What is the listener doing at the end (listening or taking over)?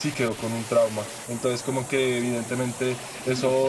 listening